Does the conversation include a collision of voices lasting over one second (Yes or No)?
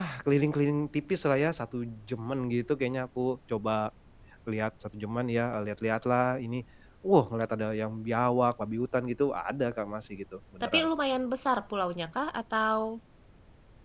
No